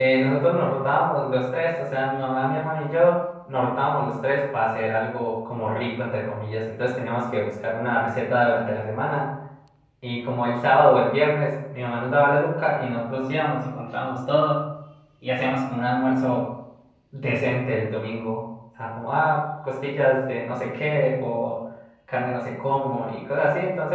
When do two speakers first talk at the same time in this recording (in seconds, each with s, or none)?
none